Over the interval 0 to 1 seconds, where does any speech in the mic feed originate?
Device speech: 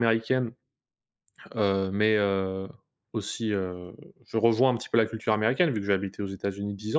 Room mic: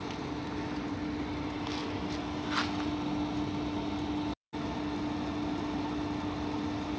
neither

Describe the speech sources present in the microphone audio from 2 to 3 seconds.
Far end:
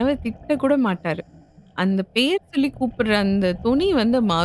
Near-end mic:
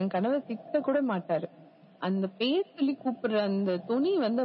echo only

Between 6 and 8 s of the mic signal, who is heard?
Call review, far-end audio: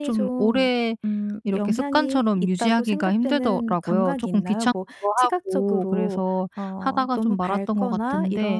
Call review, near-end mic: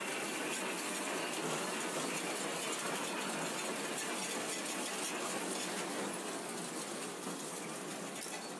neither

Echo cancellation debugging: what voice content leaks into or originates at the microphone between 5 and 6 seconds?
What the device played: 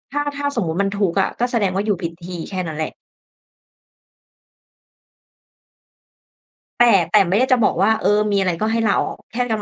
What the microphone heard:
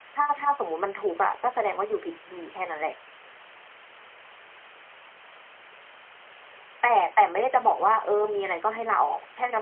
neither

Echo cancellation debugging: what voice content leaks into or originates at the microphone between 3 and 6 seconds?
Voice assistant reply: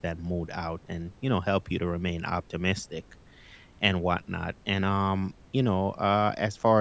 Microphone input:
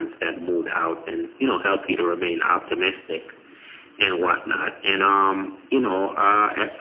echo only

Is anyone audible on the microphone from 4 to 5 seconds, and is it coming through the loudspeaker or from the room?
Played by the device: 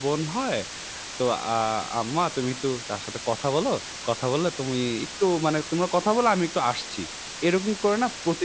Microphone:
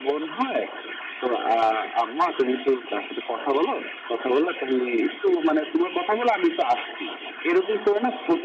echo only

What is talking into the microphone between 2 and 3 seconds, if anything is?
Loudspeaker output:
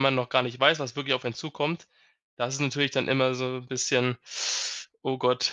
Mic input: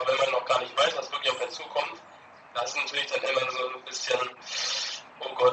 echo only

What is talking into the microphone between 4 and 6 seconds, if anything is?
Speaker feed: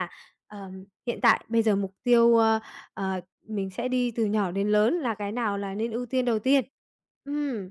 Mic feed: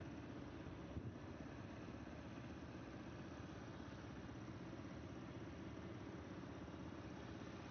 neither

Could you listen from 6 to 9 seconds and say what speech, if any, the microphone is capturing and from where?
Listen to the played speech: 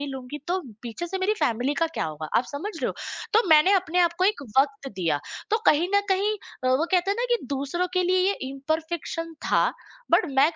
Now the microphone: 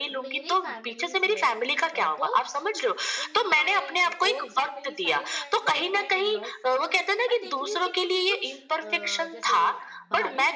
both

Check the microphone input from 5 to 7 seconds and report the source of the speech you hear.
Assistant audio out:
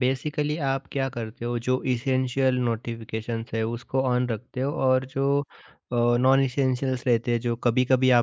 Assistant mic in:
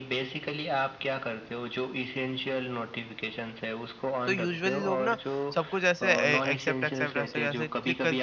both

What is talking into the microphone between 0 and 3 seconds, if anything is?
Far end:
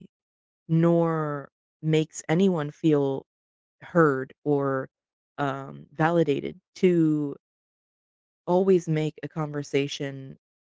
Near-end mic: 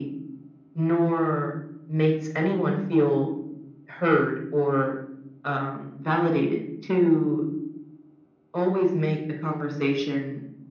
echo only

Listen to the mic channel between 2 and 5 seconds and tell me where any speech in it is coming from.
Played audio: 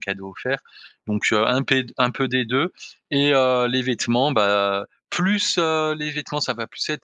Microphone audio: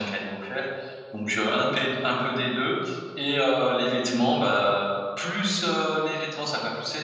echo only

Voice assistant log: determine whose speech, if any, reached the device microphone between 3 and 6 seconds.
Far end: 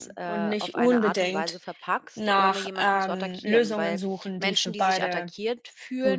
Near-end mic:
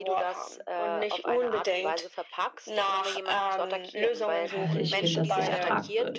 both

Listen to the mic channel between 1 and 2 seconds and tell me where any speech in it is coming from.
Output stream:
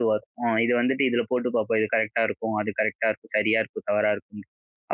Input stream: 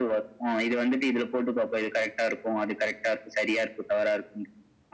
echo only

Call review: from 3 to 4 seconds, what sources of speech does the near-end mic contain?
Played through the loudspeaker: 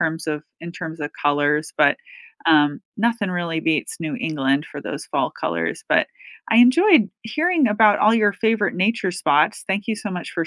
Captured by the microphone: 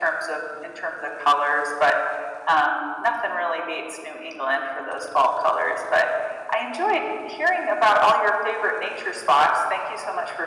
echo only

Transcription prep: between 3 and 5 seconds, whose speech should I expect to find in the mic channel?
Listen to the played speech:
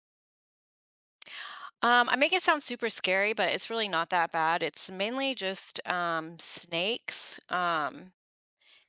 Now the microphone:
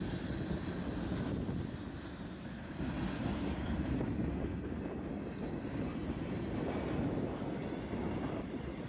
neither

